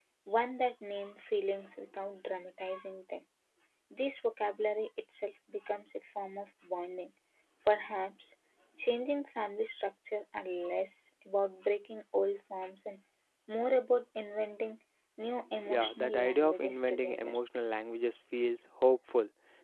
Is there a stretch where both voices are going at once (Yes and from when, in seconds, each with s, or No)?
Yes, from 15.7 s